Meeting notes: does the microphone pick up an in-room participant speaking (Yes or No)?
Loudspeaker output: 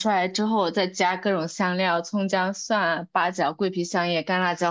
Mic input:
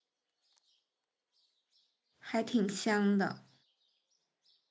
Yes